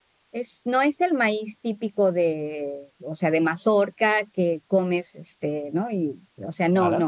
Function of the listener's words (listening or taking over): listening